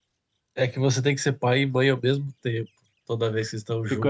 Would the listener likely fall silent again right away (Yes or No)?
No